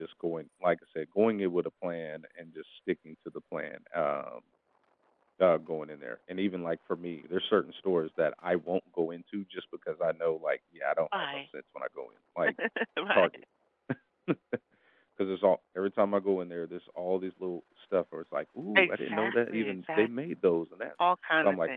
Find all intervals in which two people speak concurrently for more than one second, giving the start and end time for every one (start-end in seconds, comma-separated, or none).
18.8-20.1